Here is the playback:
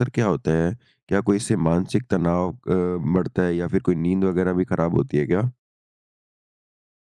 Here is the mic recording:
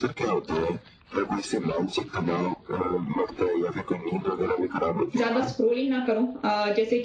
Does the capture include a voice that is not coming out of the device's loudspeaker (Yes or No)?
Yes